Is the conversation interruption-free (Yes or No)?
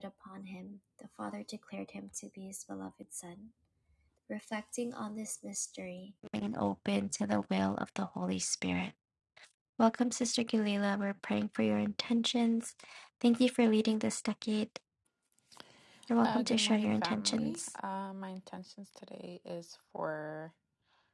No